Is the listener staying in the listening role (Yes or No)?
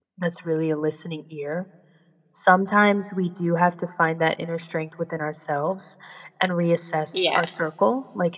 Yes